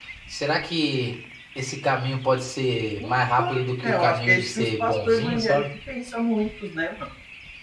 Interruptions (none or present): present